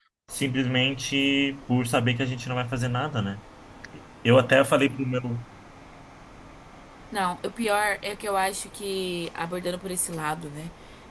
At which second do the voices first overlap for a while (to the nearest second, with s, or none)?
none